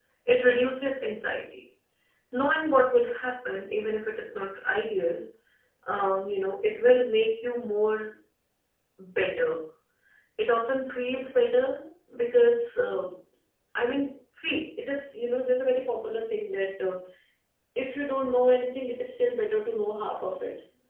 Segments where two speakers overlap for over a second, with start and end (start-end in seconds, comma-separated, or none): none